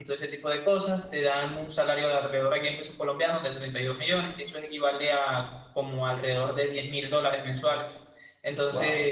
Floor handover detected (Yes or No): No